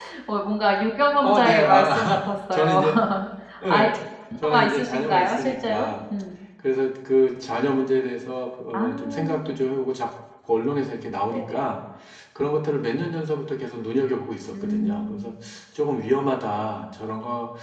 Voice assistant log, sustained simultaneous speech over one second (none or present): present